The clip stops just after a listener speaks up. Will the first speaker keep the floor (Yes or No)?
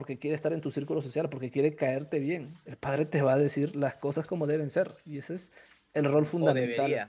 No